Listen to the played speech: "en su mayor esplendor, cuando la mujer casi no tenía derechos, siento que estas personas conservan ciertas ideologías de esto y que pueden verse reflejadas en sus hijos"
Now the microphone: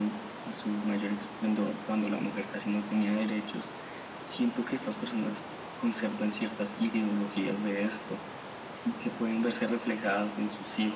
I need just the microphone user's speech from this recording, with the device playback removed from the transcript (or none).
none